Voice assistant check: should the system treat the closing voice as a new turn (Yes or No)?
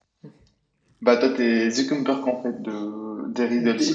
Yes